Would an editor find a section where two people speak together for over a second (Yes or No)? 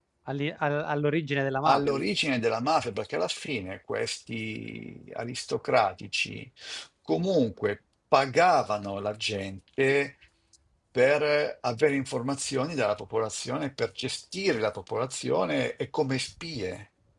No